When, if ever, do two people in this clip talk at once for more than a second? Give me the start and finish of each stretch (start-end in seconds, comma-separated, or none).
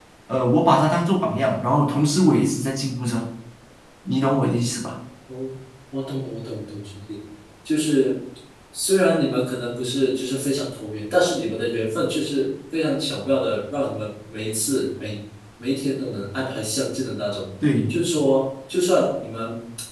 none